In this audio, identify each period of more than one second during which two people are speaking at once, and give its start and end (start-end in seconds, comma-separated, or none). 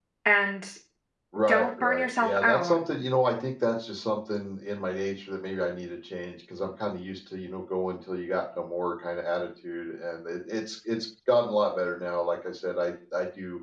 1.5-2.8